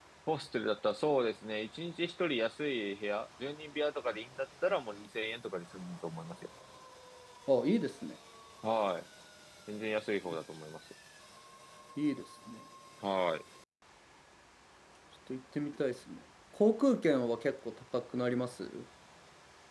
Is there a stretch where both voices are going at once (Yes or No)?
No